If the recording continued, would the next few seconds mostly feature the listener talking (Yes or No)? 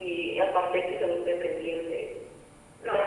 No